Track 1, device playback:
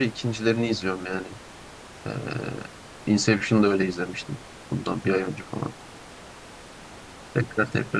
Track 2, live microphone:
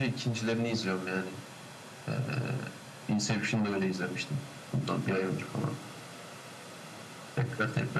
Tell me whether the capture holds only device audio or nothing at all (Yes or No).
Yes